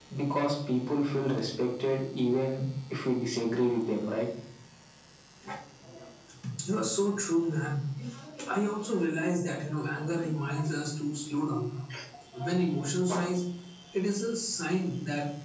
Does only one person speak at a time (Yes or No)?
Yes